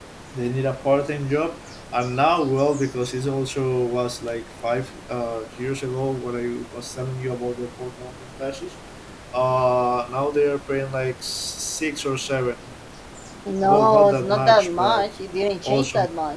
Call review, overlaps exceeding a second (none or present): present